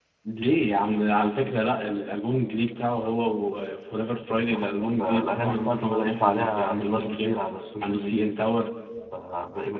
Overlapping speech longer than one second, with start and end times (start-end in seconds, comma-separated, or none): 4.3-7.4